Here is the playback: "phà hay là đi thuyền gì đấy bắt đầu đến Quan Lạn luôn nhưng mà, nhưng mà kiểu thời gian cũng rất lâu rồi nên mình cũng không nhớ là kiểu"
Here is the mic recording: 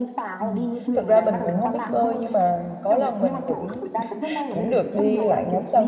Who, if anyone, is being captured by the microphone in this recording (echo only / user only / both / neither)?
both